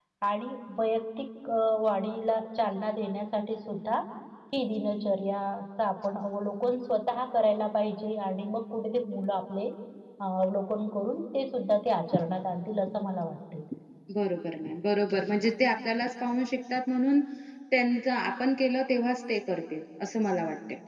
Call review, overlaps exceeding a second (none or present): none